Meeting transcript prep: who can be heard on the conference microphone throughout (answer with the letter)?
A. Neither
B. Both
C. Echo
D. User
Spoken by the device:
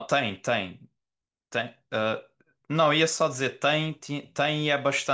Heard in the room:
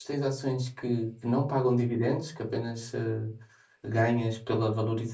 D